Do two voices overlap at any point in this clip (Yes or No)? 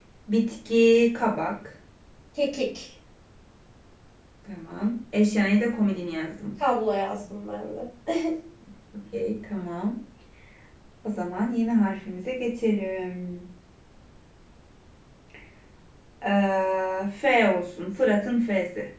No